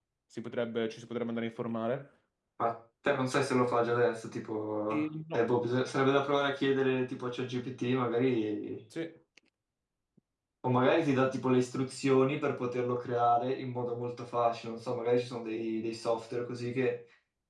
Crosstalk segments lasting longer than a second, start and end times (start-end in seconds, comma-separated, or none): none